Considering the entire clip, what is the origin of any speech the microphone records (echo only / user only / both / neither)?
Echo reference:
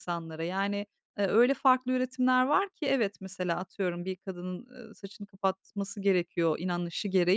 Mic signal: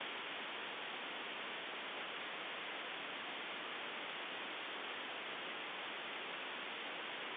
neither